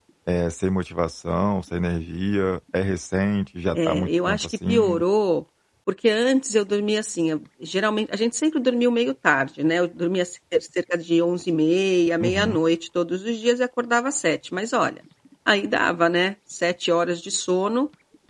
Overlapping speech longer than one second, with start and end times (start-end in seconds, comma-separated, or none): 3.8-5.0